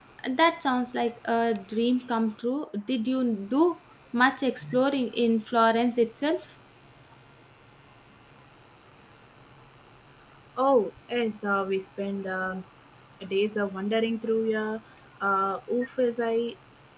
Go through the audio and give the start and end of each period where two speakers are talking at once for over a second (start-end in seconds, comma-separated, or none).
none